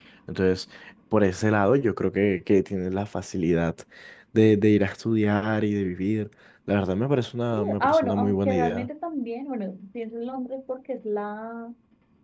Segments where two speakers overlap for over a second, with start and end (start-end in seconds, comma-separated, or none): 7.5-8.9